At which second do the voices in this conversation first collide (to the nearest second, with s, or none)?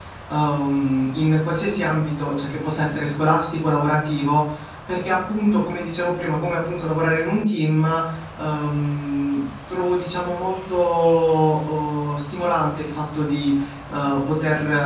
none